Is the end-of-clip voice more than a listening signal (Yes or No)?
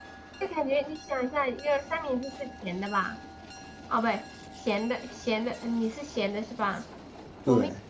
No